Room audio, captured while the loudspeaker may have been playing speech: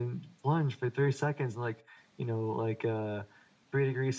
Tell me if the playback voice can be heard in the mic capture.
Yes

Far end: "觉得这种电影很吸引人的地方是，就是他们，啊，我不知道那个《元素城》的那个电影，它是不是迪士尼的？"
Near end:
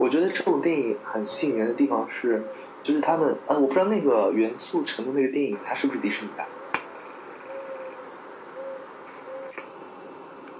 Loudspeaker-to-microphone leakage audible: Yes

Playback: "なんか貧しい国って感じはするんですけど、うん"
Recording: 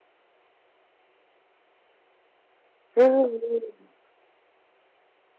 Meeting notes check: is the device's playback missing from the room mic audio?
Yes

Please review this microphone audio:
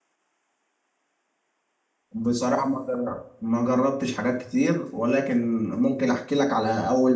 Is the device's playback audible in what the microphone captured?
No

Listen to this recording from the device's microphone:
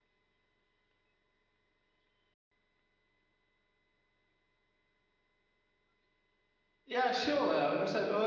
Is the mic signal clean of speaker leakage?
Yes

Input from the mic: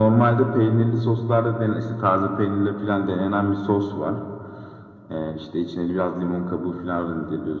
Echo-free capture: No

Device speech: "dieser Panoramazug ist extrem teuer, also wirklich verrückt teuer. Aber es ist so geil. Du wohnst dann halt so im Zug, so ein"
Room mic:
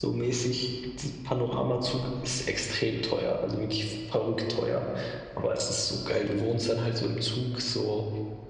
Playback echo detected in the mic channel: Yes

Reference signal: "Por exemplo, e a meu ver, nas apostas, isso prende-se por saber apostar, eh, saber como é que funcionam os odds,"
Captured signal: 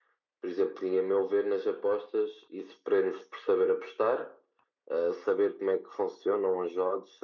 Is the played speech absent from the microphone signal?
No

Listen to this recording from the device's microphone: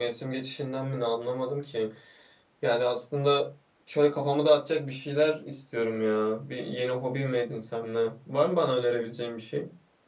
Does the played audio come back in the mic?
No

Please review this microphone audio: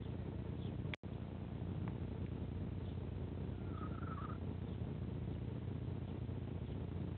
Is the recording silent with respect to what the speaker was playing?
Yes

